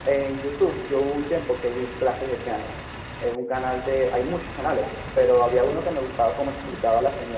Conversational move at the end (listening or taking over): listening